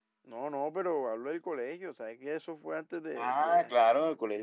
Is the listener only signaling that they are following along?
No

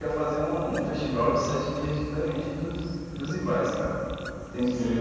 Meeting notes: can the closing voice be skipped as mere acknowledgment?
No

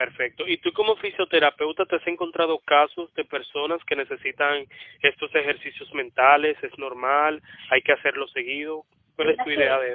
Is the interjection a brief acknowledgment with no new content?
No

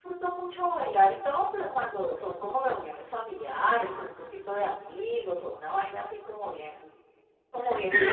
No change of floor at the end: No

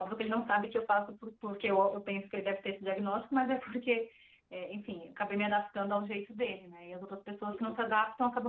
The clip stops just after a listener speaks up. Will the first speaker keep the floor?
Yes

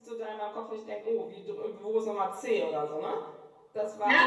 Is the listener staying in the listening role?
Yes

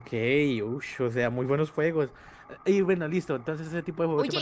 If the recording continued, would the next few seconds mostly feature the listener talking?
Yes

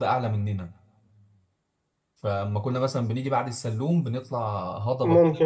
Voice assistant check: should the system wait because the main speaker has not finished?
Yes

